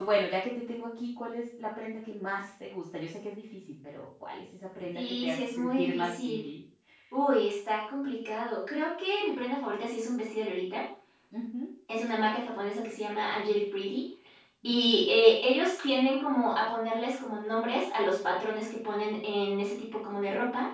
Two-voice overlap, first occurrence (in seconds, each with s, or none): 4.9 s